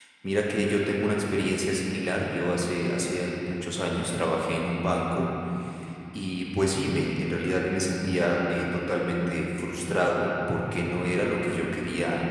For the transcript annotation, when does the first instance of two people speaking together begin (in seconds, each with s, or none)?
none